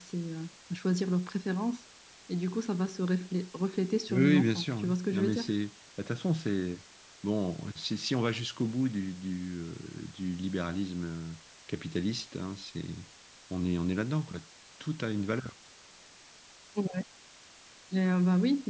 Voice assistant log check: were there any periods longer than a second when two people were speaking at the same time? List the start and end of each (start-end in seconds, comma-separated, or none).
4.1-5.5